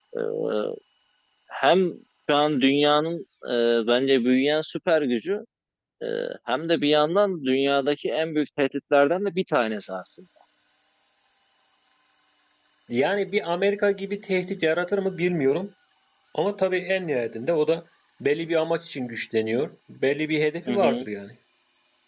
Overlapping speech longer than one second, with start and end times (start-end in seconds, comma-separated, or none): none